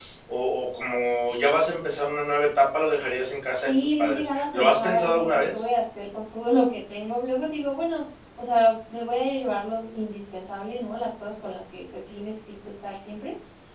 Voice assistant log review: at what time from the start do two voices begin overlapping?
3.7 s

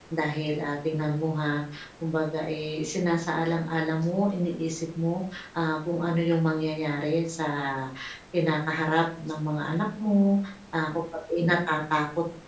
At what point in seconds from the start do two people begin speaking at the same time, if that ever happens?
none

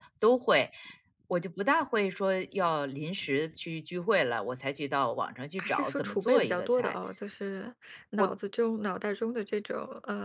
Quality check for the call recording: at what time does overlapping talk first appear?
5.6 s

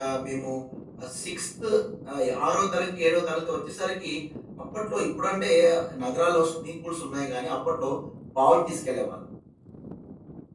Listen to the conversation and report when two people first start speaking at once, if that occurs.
none

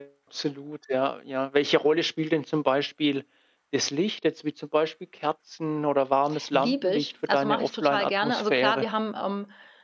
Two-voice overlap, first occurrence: 6.5 s

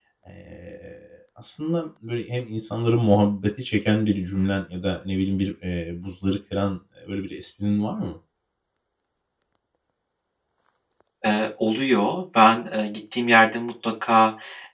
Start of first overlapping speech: none

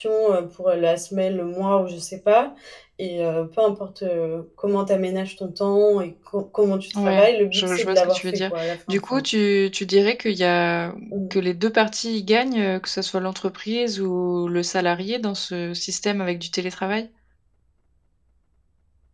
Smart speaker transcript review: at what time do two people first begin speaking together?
6.9 s

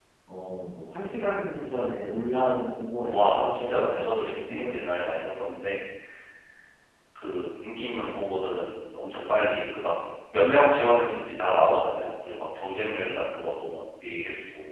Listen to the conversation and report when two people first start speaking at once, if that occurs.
3.1 s

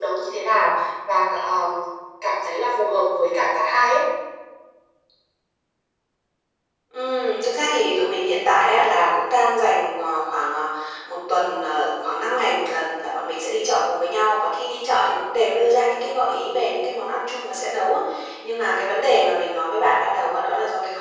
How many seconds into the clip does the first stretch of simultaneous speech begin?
none

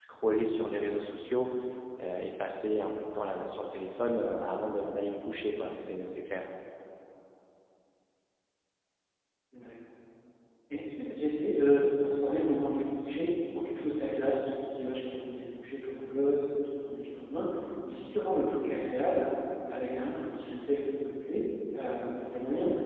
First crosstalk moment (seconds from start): none

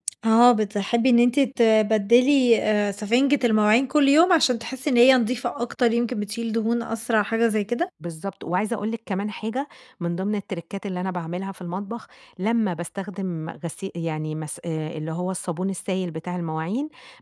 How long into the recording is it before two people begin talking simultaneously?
none

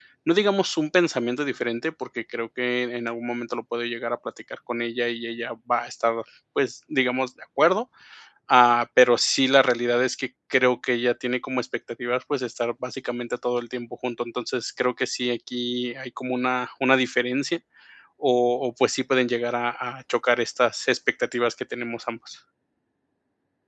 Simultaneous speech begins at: none

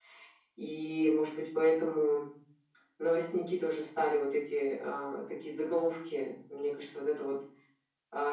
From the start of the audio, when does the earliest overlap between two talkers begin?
none

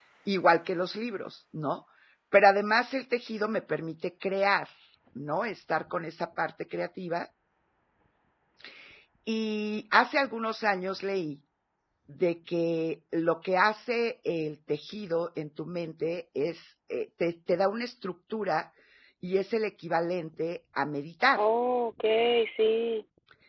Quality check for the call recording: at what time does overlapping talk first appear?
none

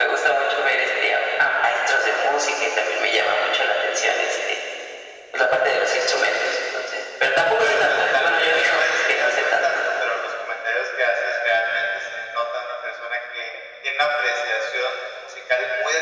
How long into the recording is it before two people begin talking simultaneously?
7.6 s

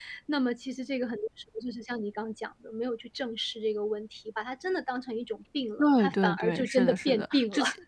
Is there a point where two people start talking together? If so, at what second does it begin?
5.8 s

